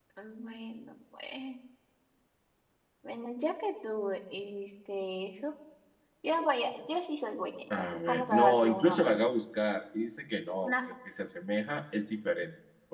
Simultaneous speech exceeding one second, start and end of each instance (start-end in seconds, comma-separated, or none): 7.8-9.2